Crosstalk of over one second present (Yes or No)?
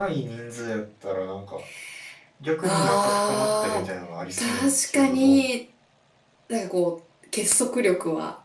Yes